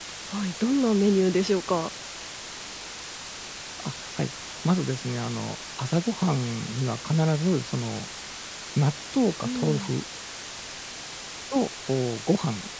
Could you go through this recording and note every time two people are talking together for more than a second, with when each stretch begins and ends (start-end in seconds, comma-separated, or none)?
none